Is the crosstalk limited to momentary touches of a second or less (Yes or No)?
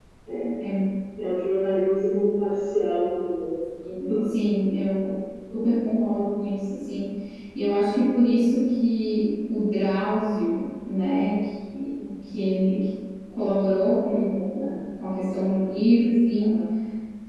Yes